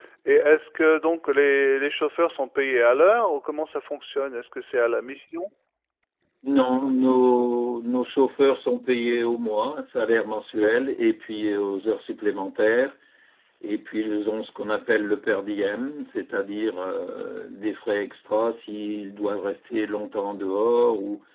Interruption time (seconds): none

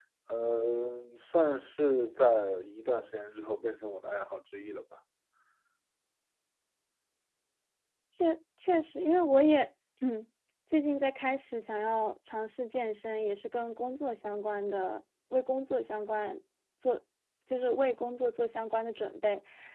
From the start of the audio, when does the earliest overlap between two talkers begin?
none

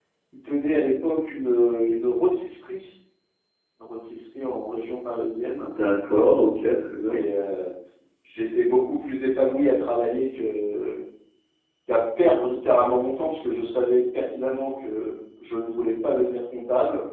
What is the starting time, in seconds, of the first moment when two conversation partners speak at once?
none

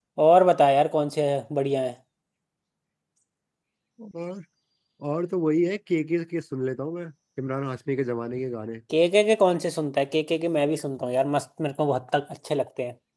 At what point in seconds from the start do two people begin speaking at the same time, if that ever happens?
none

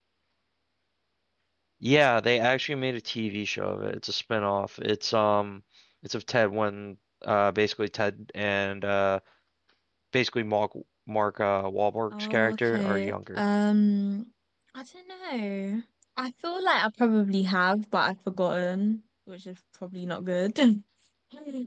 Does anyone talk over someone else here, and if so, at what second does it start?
12.1 s

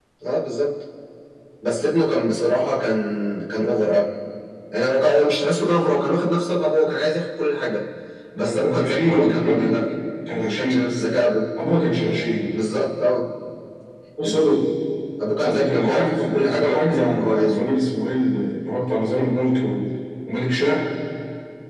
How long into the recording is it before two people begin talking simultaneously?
8.4 s

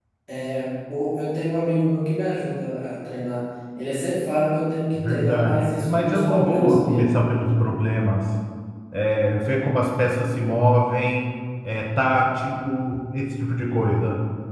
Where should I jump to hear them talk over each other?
5.0 s

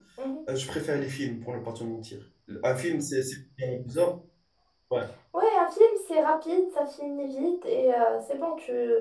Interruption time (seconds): none

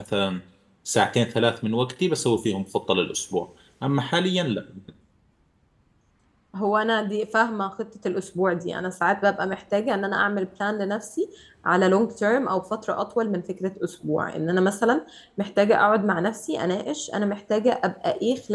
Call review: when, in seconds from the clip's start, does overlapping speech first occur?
none

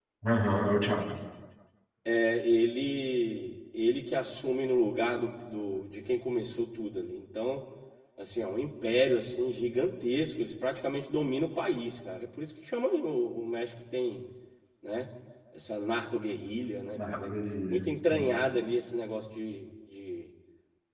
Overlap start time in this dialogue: 16.9 s

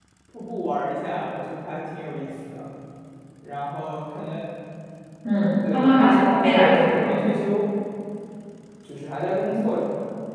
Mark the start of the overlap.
5.7 s

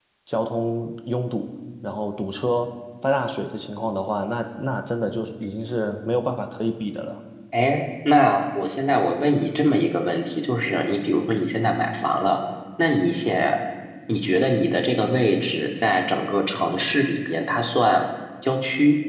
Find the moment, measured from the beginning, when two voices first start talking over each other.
none

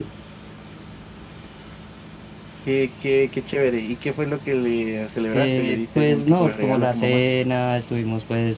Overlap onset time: 5.3 s

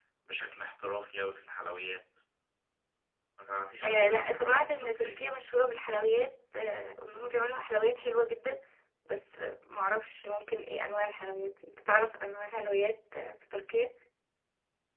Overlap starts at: 3.8 s

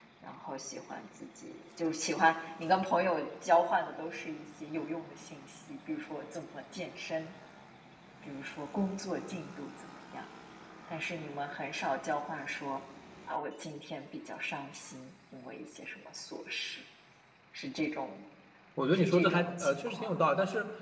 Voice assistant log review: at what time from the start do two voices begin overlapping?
18.9 s

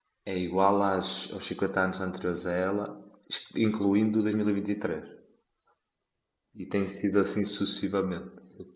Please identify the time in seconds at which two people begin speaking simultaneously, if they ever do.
none

